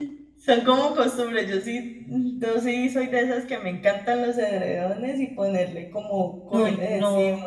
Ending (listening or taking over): taking over